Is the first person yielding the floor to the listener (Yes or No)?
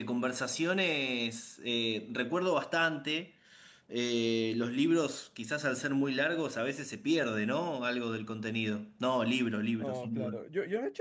Yes